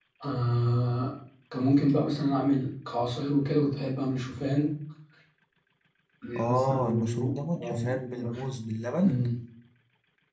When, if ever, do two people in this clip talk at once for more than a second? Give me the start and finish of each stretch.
6.5-8.4

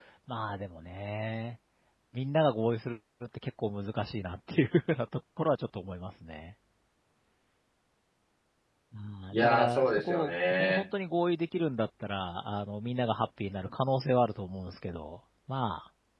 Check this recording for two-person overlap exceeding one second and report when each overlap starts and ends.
9.3-10.8

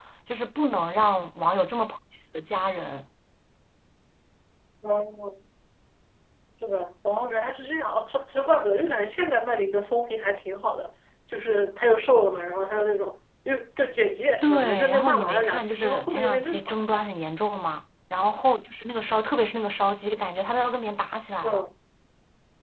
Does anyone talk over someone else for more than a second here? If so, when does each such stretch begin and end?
14.4-16.8

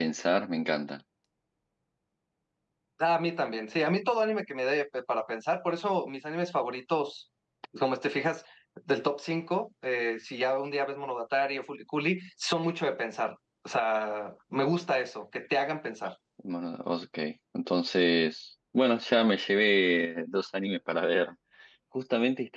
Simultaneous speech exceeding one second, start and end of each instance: none

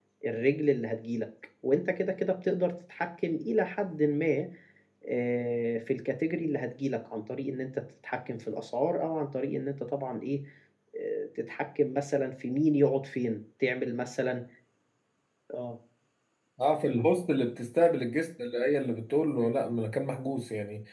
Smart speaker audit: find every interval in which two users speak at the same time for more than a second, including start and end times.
none

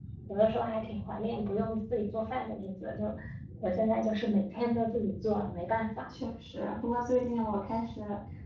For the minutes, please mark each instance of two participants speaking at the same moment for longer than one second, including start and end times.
none

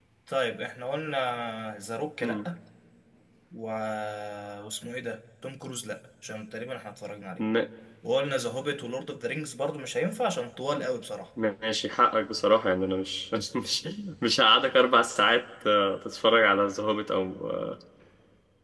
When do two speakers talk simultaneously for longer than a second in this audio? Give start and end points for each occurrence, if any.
none

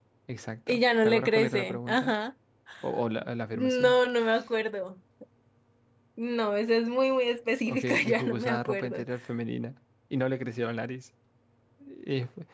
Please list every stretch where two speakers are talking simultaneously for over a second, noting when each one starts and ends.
0.7-2.1, 7.7-9.0

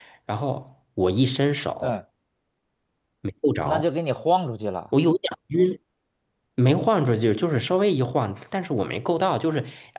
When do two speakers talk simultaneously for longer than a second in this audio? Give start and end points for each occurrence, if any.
none

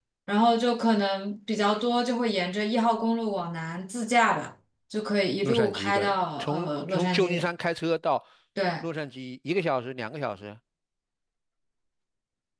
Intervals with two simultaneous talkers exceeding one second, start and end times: 5.4-7.4

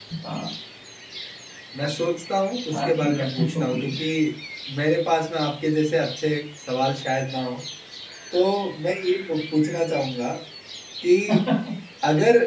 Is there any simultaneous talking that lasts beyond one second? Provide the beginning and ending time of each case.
2.7-4.0

